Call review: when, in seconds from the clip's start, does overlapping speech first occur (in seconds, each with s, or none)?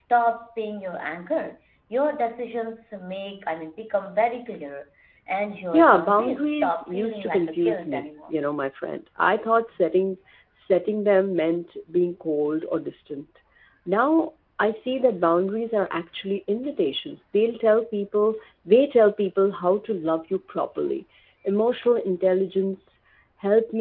5.7 s